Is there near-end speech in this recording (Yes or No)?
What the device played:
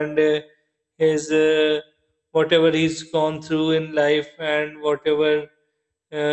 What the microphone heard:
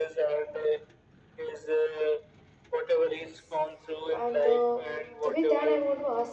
Yes